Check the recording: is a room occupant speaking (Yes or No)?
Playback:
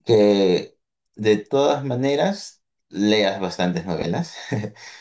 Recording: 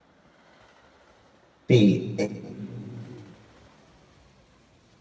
Yes